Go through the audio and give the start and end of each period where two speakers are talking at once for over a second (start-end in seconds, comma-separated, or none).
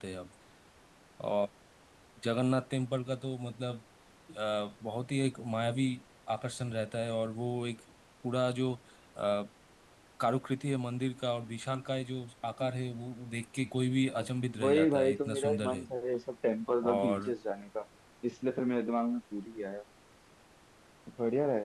14.6-15.8